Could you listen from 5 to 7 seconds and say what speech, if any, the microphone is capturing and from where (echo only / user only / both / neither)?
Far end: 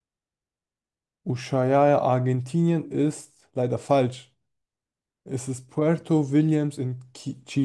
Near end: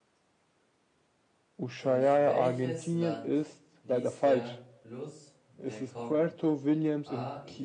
both